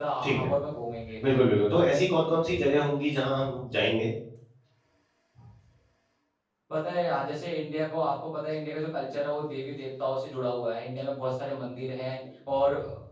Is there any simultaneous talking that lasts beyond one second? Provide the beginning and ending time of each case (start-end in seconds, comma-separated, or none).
none